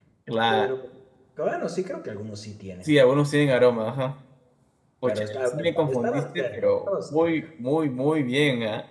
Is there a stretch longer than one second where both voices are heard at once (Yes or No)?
Yes